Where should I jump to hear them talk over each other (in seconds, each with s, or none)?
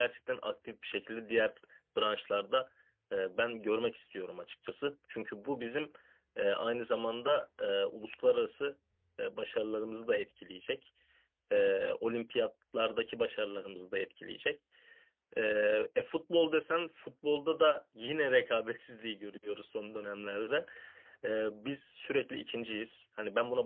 none